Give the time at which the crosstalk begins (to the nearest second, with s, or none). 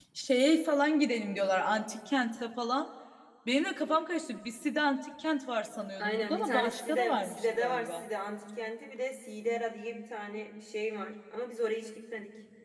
6 s